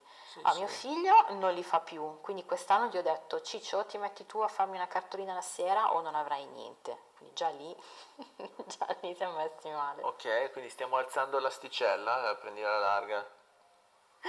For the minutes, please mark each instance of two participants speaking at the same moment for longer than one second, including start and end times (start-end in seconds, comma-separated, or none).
none